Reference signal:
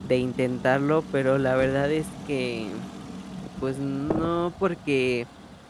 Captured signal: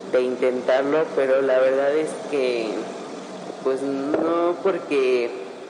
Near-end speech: none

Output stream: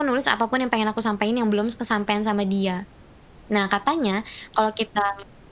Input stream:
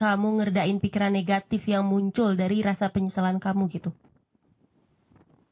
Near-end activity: present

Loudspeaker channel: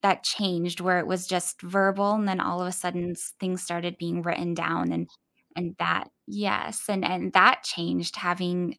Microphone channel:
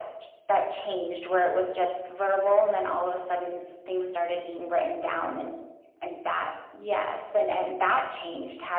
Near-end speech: none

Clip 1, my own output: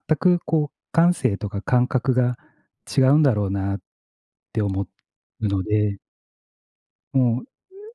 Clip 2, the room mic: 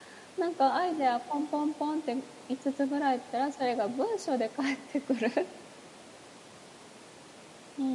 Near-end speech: present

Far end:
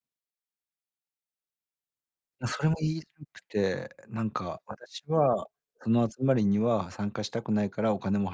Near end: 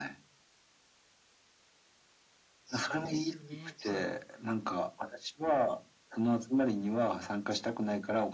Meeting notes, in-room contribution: present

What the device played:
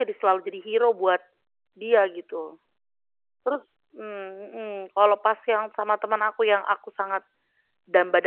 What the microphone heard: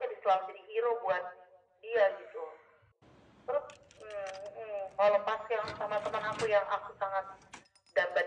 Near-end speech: none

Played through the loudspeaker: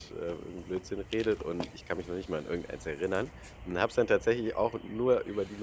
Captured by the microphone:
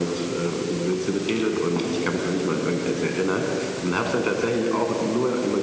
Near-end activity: none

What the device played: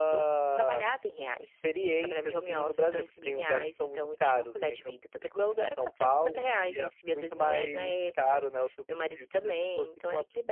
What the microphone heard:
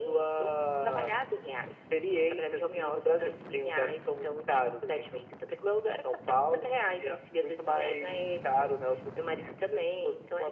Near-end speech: none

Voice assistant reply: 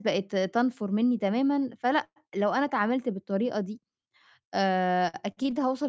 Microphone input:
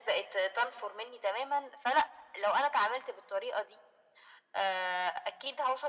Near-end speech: none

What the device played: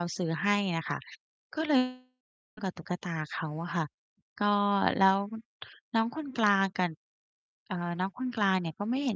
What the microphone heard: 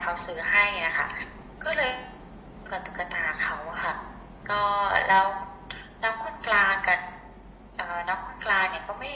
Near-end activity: none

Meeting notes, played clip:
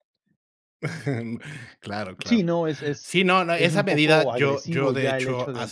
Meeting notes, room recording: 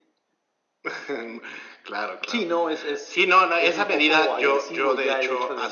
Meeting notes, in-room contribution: none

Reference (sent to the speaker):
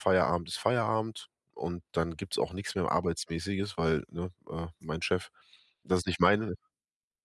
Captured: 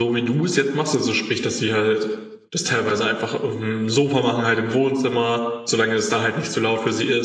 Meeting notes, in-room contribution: present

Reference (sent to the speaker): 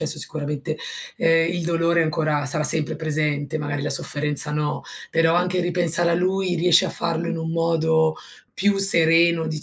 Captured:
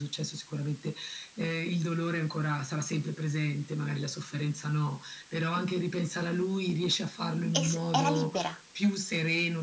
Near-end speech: present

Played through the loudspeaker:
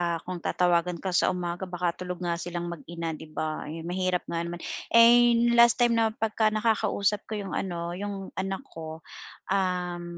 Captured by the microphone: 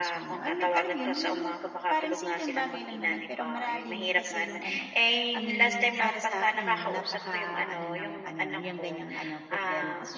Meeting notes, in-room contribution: present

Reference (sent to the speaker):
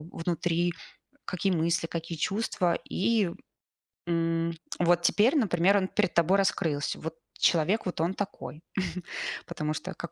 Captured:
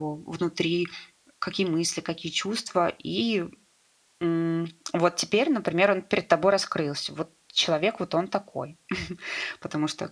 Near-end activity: none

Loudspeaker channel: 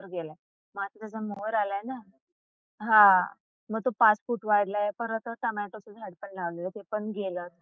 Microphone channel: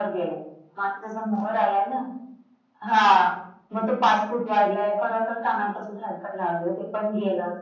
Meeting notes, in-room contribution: none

